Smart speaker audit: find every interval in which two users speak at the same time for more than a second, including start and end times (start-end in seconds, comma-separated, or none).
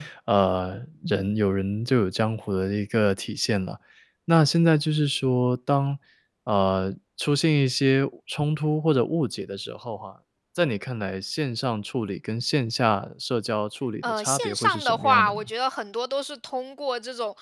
14.0-15.5